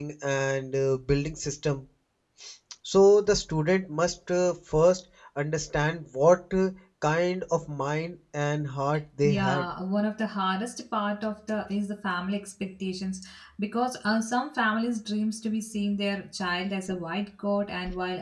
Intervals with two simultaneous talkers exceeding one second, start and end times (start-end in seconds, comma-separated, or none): none